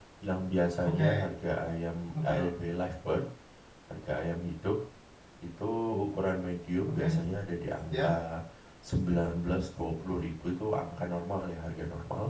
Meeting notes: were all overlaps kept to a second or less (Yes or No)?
Yes